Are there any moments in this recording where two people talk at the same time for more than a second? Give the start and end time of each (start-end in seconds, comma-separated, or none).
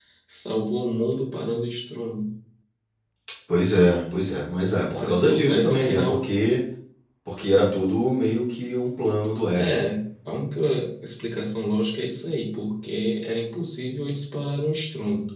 5.0-6.3